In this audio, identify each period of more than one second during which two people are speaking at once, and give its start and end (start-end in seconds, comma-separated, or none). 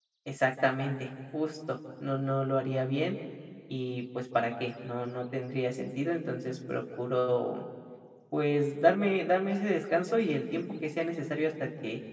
none